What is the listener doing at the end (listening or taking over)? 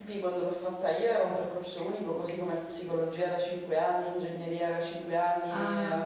listening